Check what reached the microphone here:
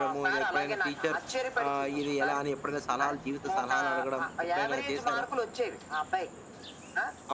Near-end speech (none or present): present